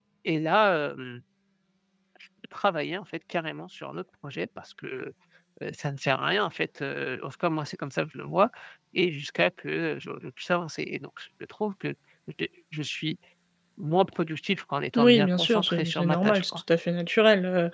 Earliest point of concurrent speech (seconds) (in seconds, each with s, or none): 14.9 s